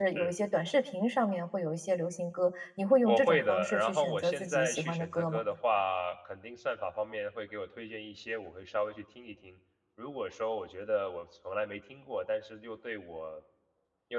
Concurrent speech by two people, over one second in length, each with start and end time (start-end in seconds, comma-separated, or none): 3.0-5.4